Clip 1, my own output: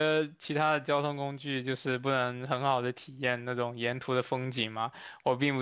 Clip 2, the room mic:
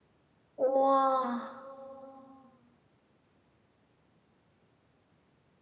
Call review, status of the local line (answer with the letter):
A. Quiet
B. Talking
B